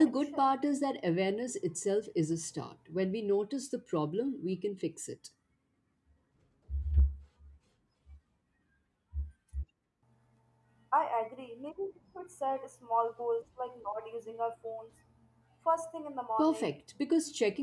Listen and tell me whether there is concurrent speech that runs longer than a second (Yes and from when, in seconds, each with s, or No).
No